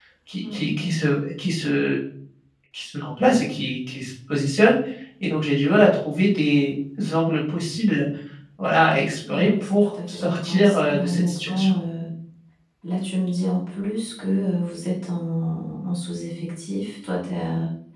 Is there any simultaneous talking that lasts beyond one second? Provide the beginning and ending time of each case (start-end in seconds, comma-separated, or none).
9.3-11.7